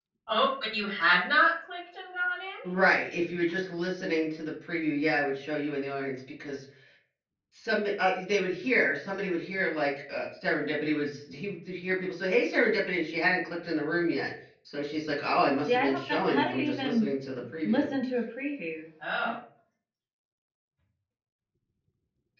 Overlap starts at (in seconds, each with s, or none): 15.7 s